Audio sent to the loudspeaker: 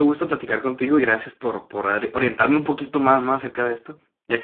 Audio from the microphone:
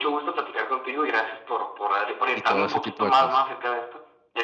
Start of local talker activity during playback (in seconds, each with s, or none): 2.3 s